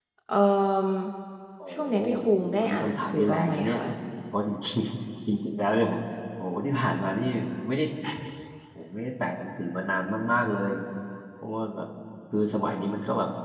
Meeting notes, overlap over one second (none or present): present